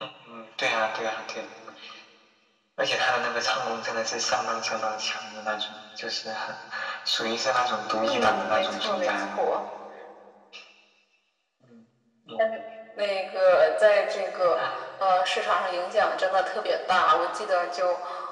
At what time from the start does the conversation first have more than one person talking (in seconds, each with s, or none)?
8.0 s